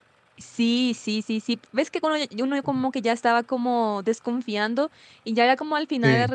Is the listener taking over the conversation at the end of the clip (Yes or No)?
No